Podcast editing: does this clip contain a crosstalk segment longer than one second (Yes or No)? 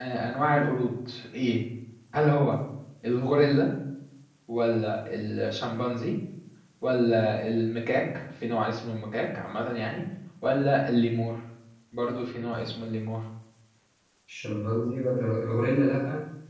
No